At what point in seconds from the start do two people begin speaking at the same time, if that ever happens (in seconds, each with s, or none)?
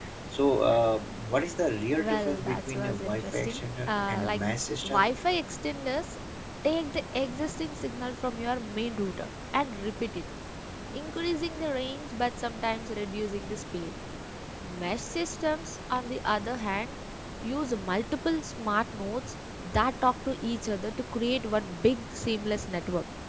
2.0 s